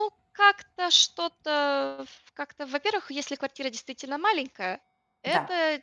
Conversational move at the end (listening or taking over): listening